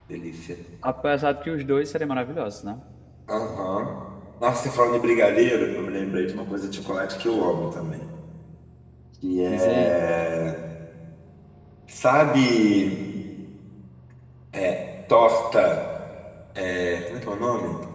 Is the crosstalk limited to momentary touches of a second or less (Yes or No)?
Yes